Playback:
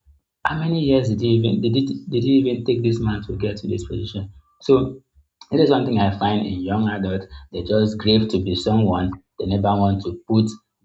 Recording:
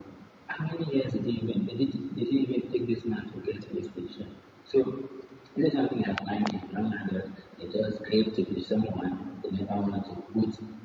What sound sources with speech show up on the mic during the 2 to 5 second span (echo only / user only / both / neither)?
echo only